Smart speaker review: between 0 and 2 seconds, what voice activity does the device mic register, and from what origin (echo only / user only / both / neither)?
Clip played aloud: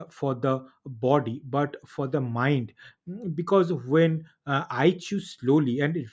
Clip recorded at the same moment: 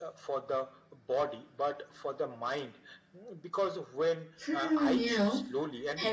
echo only